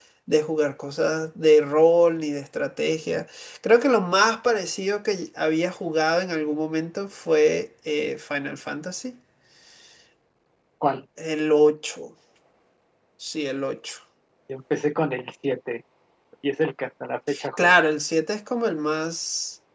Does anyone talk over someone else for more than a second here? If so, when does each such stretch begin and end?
none

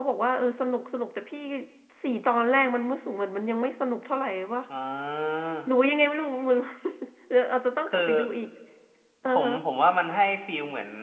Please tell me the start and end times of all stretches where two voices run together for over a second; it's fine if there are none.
none

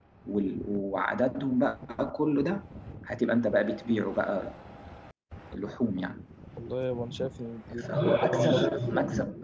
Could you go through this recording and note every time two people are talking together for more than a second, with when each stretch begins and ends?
none

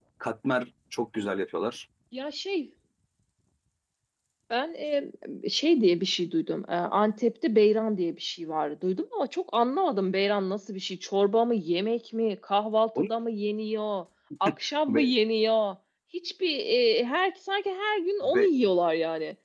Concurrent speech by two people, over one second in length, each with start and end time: none

